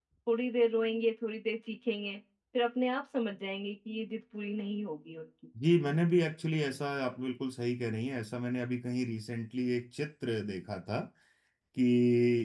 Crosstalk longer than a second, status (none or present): none